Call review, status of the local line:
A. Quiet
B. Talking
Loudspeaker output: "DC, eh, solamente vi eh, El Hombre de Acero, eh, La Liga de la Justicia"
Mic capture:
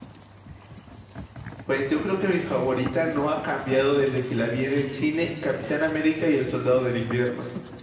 B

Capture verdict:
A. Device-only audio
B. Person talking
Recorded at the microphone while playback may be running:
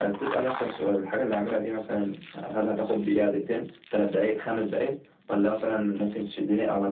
A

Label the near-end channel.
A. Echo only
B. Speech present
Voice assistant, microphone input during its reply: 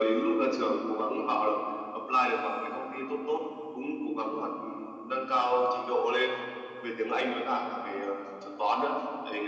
A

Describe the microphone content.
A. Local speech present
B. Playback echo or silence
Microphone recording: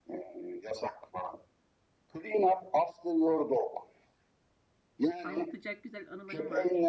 A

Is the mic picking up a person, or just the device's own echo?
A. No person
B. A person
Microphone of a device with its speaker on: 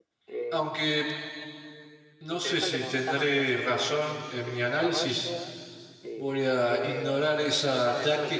B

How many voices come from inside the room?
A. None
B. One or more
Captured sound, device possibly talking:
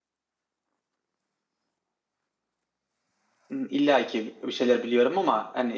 B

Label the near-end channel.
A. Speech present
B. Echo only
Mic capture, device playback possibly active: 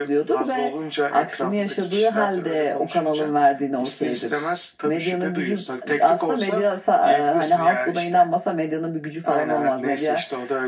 B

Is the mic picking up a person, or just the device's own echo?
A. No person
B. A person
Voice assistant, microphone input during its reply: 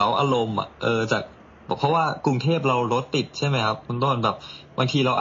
A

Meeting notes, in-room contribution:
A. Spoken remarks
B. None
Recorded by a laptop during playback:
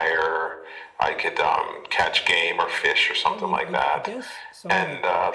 A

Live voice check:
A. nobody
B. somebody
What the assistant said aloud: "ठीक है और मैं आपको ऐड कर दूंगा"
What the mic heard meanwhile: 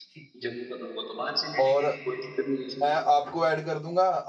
B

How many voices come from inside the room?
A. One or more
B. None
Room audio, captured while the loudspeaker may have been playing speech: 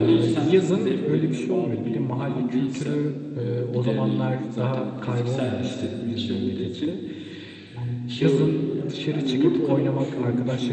A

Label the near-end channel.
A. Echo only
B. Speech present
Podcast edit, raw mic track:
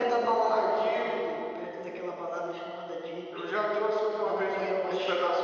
A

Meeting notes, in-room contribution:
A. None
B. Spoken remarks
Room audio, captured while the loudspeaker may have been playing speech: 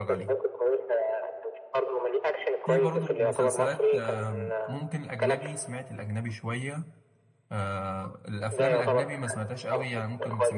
B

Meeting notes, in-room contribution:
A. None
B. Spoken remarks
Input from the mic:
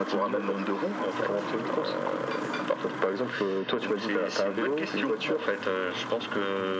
B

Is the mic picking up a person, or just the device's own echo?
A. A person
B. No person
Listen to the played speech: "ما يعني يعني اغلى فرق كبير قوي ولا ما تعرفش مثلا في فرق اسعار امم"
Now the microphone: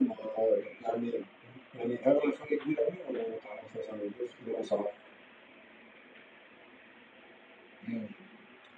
B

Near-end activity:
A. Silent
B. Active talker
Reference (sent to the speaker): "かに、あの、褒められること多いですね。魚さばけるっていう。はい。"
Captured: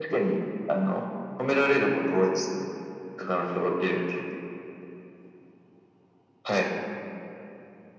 A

